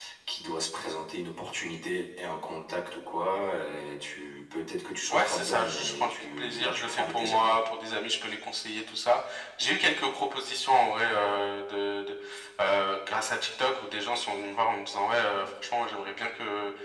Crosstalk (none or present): present